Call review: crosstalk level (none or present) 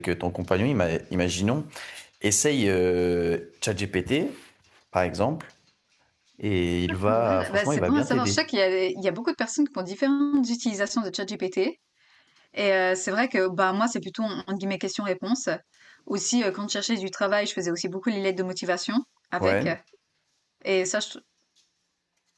present